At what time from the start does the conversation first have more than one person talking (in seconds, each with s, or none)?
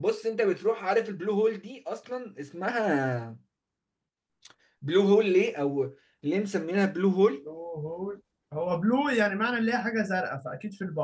none